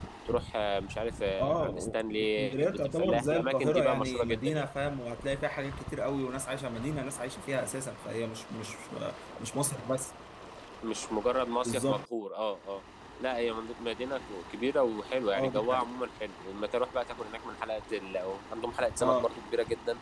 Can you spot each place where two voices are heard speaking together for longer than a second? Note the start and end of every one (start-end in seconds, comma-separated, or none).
1.4-4.7